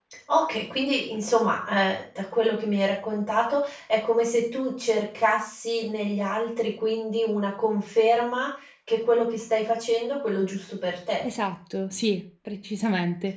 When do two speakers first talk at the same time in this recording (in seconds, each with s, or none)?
none